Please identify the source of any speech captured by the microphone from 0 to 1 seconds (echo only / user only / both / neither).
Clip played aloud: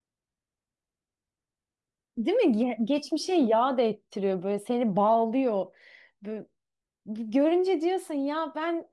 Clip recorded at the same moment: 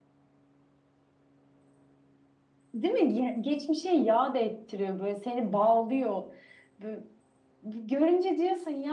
neither